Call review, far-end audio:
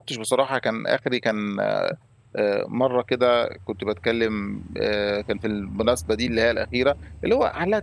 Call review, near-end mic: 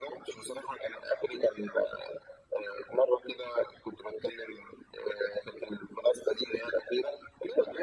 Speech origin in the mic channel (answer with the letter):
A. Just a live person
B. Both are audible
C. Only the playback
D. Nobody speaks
C